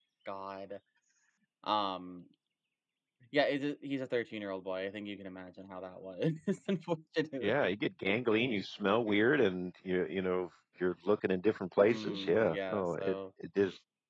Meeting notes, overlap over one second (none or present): present